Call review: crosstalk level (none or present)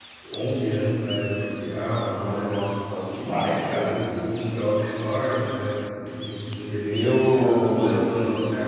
present